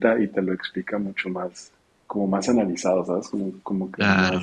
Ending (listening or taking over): taking over